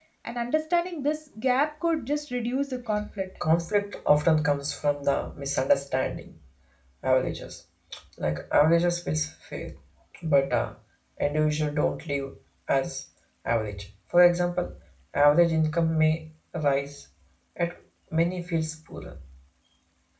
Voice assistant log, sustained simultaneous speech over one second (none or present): none